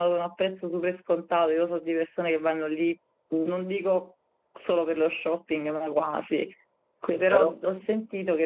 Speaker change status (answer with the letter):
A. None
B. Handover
A